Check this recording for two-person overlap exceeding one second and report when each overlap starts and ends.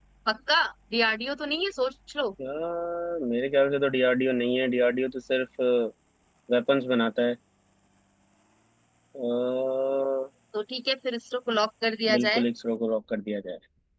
none

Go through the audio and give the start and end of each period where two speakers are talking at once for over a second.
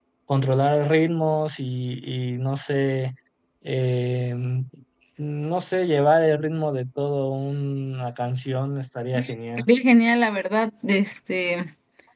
none

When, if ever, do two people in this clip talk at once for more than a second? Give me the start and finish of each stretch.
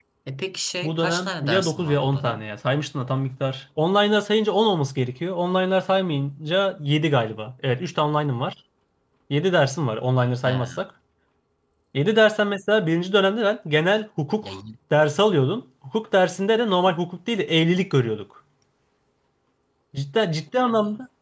0.8-2.4

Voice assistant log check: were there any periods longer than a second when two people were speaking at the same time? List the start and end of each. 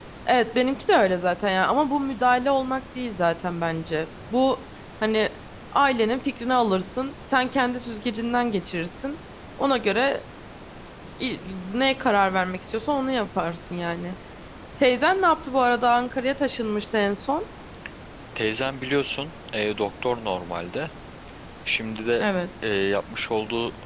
none

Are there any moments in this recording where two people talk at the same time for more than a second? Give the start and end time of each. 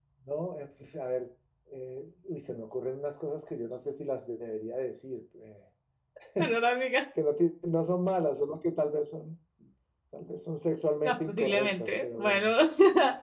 11.0-12.5

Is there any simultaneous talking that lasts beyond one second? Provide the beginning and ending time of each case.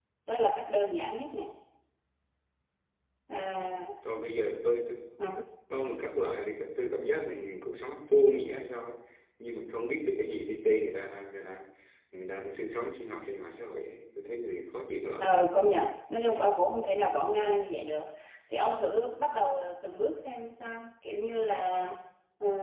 none

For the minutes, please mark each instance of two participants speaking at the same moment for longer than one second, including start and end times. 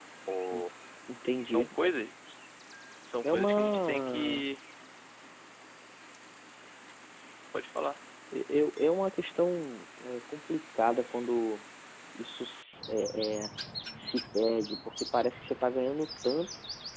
3.2-4.5

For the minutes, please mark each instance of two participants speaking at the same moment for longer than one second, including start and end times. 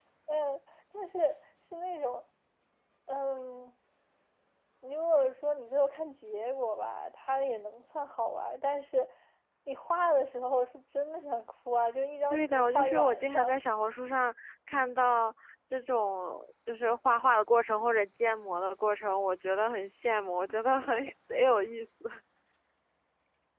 12.3-13.5

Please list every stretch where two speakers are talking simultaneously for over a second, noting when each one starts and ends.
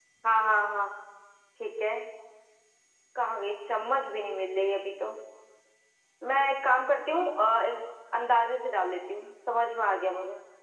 none

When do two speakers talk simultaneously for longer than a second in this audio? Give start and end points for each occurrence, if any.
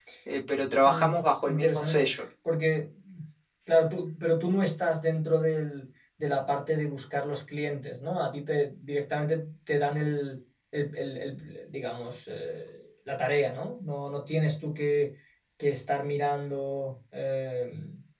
0.8-2.1

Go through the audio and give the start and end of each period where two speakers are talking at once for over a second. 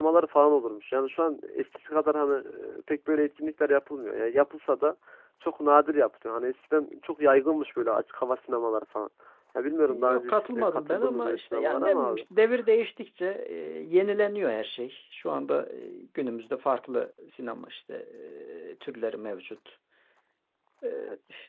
9.9-12.2

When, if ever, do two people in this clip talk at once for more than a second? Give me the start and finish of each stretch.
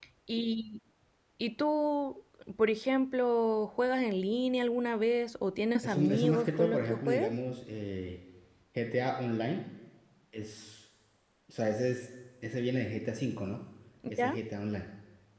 5.8-7.3

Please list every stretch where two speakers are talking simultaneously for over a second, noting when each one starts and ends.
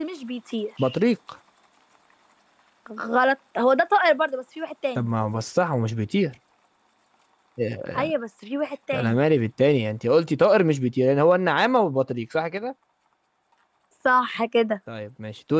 none

